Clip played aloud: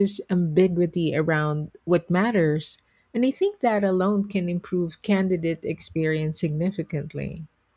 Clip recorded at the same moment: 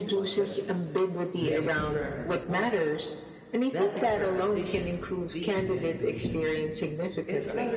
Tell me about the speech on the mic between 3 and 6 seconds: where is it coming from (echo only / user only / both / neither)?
both